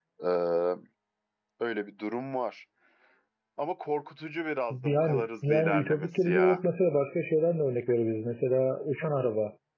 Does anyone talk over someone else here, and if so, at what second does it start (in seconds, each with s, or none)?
4.7 s